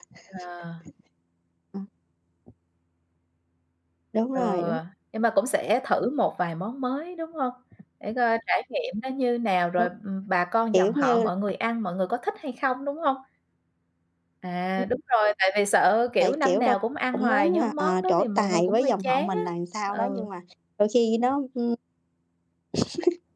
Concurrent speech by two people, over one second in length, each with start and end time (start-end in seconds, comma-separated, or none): 17.1-19.4